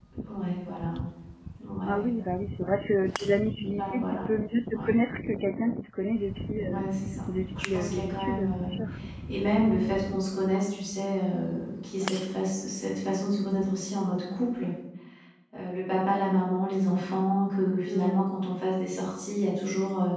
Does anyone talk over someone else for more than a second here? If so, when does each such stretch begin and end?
7.5-8.7

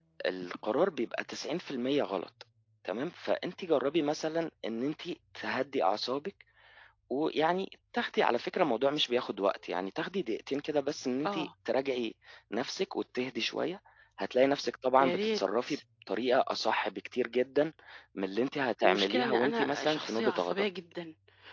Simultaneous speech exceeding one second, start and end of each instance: 18.8-20.6

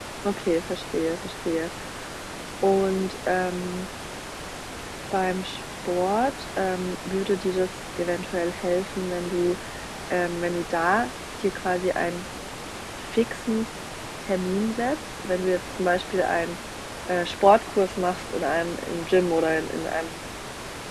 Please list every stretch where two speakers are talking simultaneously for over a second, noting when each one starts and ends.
none

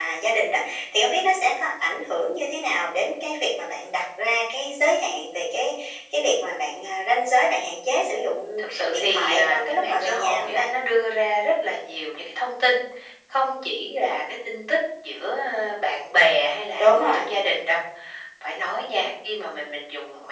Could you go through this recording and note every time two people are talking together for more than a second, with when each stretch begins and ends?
8.6-10.7

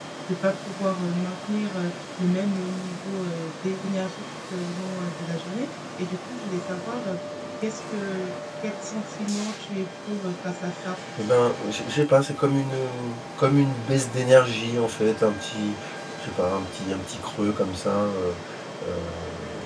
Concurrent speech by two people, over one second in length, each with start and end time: none

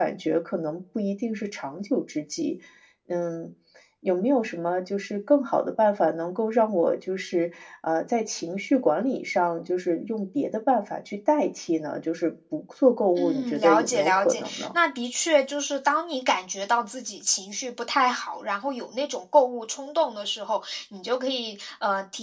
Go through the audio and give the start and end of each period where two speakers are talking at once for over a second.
13.2-14.8

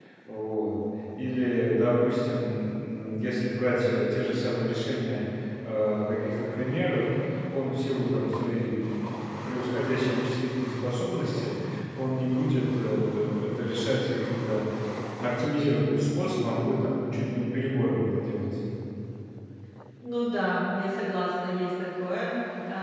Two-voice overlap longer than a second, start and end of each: none

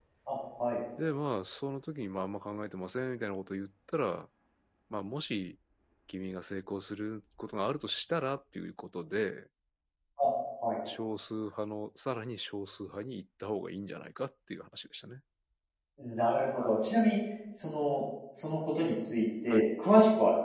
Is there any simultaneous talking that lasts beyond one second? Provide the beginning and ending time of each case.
none

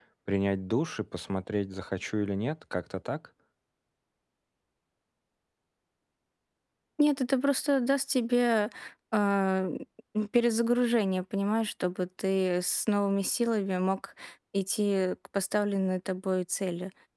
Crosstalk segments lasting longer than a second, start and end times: none

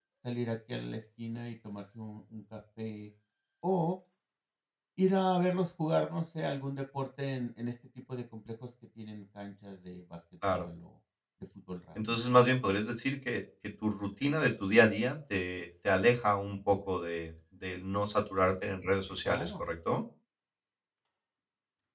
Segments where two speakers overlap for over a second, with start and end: none

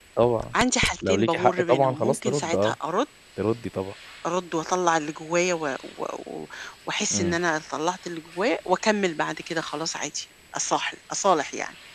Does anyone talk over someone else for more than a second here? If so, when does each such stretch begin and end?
1.0-2.7

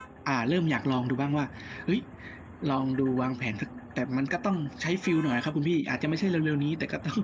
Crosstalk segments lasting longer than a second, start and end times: none

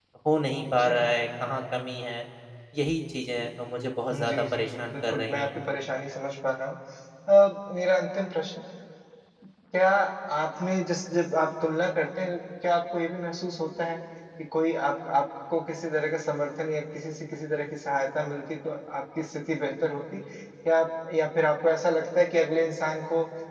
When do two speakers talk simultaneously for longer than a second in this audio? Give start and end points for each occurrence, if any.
4.1-5.6

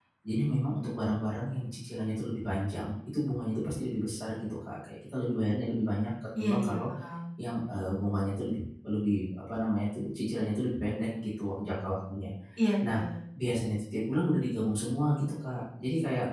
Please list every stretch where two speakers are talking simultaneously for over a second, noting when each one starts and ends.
none

